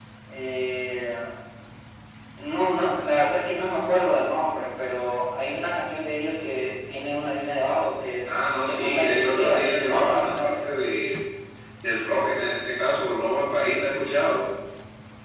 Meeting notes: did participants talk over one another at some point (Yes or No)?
Yes